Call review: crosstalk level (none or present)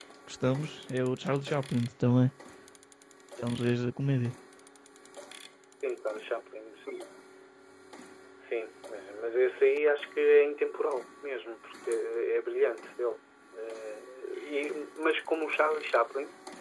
none